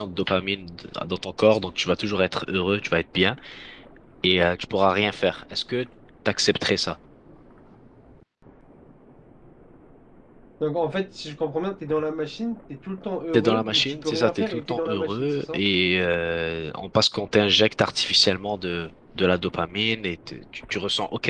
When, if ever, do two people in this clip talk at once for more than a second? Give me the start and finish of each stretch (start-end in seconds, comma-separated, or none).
13.3-15.6